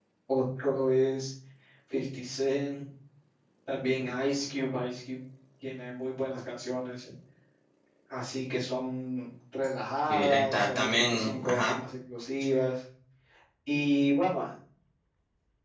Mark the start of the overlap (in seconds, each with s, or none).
10.1 s